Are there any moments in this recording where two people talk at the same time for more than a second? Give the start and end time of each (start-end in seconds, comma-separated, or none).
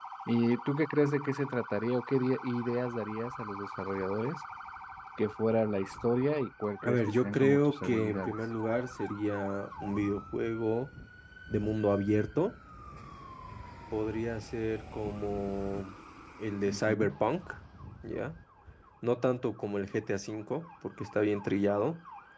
6.8-8.3